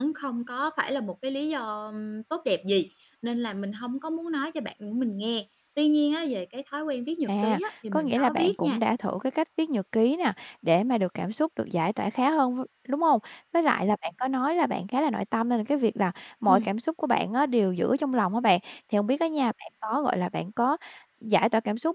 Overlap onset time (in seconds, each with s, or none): 7.3 s